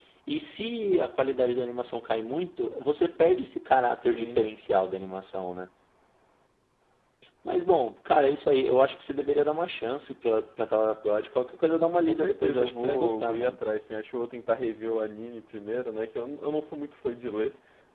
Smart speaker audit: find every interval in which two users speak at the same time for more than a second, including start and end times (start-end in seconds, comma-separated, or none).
12.0-13.6